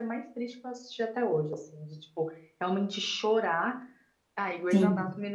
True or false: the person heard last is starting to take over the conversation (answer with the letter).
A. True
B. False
B